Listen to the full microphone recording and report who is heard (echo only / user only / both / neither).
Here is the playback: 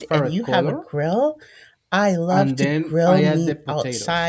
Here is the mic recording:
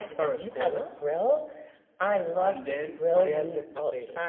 echo only